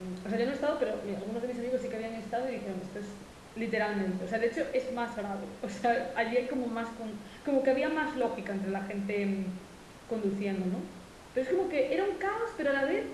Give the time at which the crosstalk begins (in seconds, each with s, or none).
none